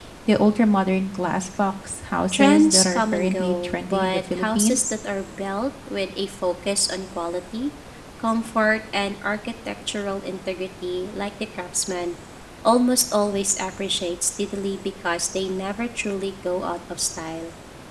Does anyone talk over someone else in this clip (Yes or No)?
Yes